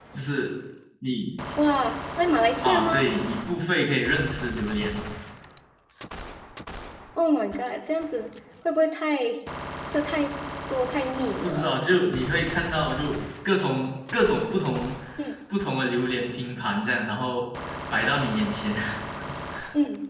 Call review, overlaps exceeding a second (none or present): none